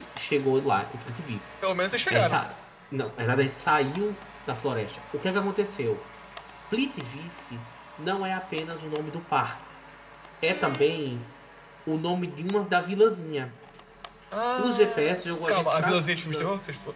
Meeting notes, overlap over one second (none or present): present